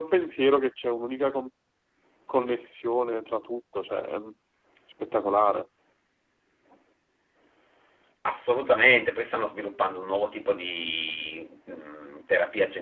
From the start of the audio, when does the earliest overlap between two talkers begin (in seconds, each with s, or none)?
none